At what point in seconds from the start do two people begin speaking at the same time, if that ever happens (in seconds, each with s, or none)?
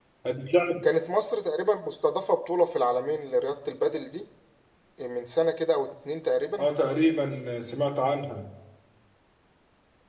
none